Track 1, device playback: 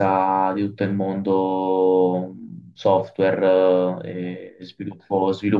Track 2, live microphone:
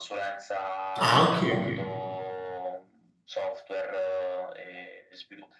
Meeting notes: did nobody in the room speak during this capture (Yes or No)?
No